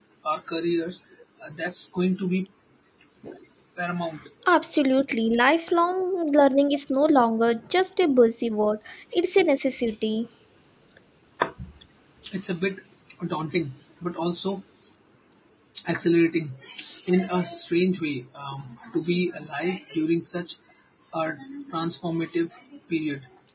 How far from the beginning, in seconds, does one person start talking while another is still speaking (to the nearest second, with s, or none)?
none